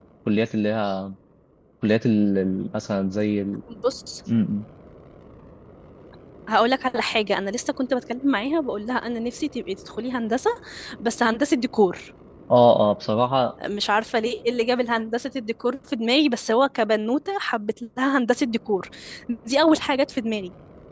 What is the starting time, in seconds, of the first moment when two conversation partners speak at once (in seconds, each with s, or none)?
none